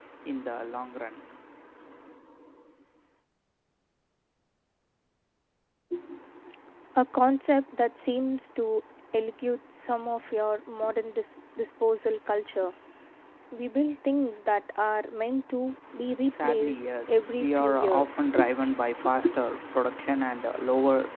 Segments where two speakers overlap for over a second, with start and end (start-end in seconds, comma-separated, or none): 16.3-18.3